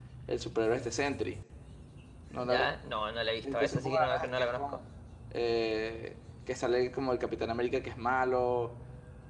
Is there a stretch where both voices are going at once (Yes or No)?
Yes